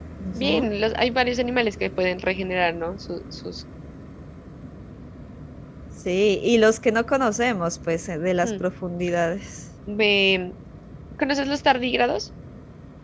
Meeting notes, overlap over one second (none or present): none